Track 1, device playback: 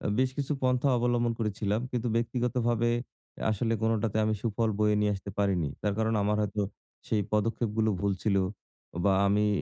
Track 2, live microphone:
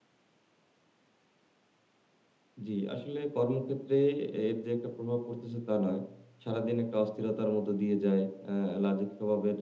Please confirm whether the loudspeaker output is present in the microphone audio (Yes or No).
No